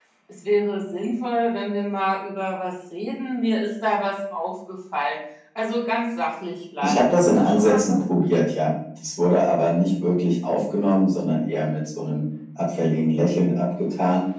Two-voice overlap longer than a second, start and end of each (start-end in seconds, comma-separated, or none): 6.8-8.2